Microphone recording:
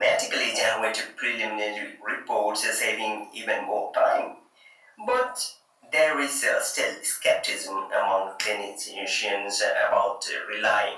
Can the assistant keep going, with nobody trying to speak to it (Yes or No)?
Yes